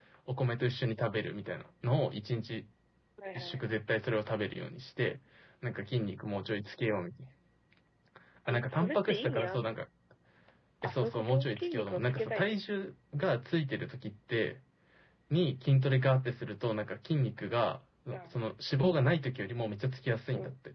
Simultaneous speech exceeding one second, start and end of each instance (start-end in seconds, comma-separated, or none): 8.5-9.8, 10.8-12.4